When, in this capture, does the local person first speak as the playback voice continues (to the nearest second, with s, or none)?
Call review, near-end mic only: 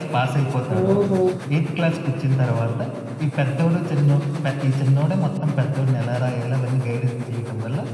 1 s